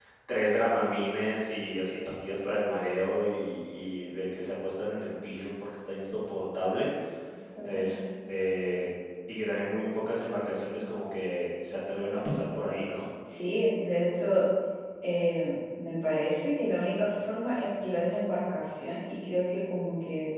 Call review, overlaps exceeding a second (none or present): none